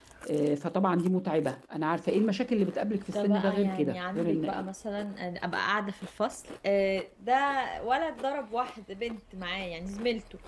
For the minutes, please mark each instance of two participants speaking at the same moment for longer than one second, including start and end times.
3.1-4.7

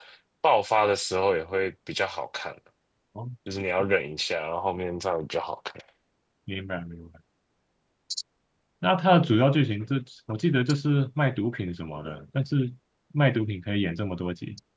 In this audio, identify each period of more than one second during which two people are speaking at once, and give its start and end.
none

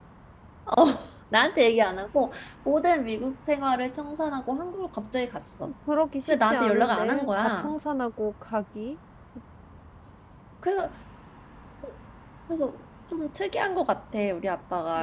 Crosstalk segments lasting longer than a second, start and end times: 6.3-7.7

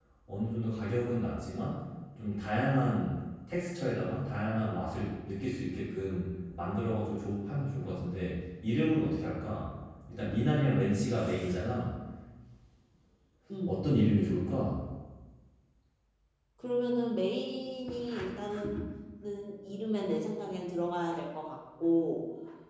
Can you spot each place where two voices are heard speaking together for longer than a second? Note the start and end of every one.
none

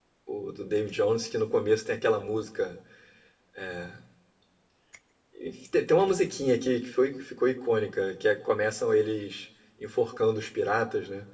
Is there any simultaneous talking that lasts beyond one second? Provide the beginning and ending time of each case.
none

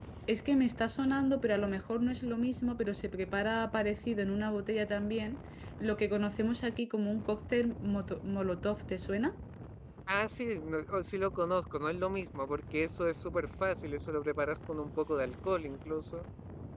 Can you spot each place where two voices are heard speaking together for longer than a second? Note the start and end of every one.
none

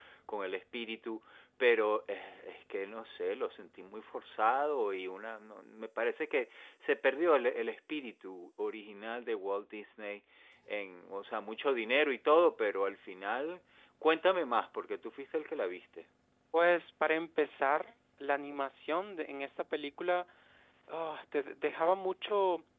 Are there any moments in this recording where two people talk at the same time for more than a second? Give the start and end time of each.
none

